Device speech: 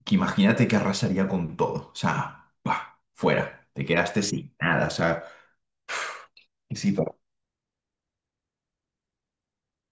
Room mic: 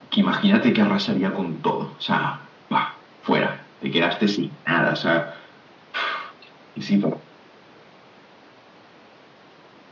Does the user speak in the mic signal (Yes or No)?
No